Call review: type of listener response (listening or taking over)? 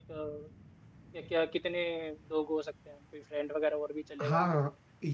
taking over